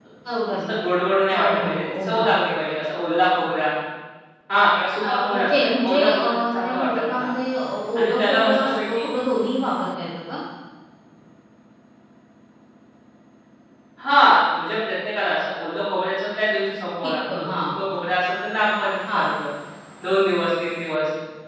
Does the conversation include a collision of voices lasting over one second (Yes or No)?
Yes